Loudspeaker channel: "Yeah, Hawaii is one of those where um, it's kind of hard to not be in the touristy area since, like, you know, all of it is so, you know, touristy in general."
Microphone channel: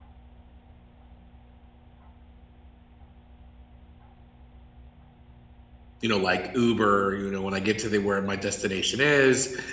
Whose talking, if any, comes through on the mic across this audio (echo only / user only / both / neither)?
user only